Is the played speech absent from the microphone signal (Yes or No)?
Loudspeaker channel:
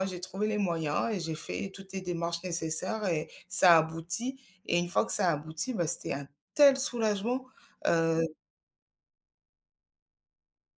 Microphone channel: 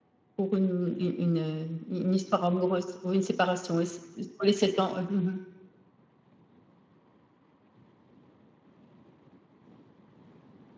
Yes